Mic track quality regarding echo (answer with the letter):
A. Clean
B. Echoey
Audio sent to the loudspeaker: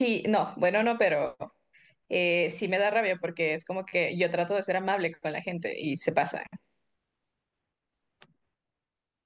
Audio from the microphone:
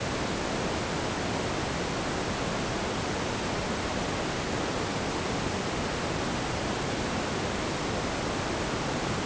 A